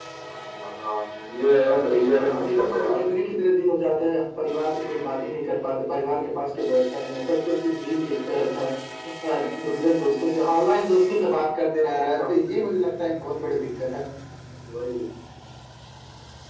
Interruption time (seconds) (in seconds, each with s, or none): 1.9 s